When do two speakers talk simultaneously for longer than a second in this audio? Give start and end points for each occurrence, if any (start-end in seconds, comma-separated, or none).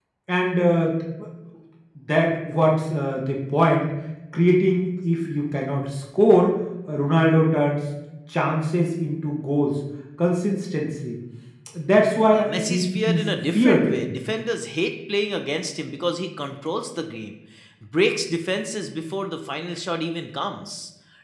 12.3-14.1